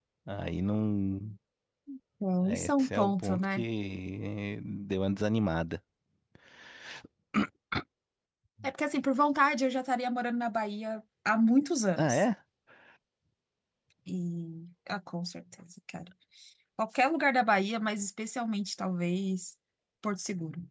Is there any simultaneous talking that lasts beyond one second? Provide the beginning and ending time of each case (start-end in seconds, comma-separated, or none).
2.4-3.6